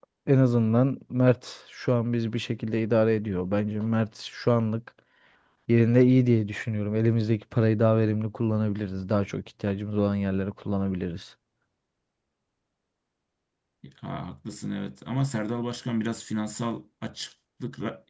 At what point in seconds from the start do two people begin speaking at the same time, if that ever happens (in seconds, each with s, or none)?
none